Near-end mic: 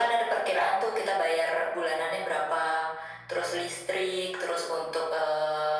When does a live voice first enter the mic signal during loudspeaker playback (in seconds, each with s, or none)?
none